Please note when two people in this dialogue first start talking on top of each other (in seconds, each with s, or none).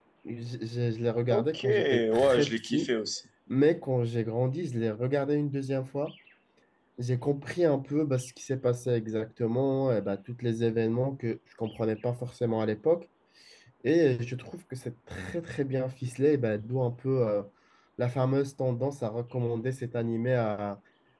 1.3 s